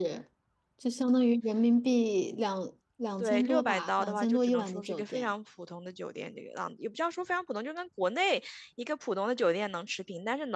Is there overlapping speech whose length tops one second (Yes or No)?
Yes